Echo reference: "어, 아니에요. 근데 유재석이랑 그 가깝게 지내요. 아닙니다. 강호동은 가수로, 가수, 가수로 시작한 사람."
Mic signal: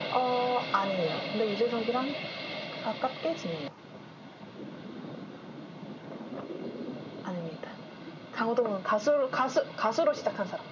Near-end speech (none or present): none